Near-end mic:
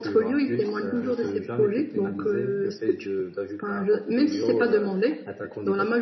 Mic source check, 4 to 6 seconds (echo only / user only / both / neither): echo only